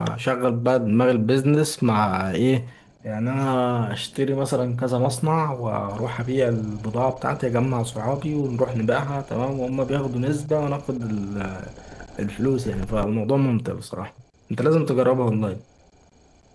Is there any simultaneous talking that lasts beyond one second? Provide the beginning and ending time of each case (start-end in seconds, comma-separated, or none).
none